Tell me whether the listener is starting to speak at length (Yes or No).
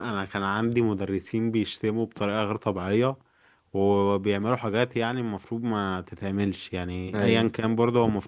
No